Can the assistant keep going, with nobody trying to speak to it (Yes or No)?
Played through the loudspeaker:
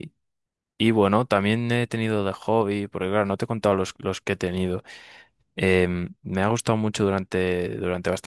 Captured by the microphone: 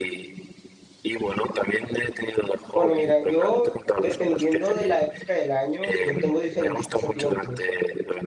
No